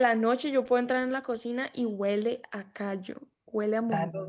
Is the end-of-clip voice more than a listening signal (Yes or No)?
Yes